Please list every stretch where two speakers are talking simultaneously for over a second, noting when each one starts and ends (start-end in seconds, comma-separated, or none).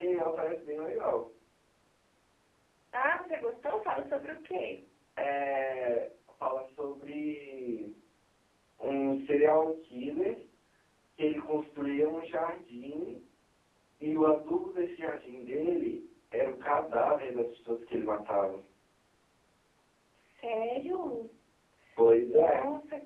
none